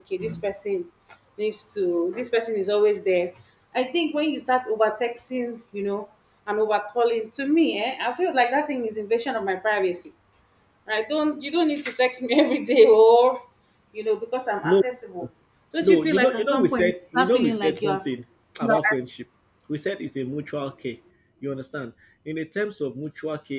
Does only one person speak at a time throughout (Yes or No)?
No